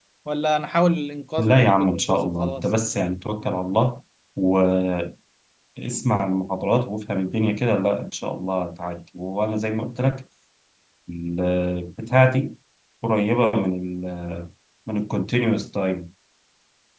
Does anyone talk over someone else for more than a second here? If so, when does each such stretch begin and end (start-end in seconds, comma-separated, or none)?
1.4-2.7